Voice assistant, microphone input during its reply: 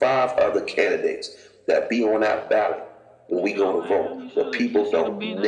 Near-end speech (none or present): present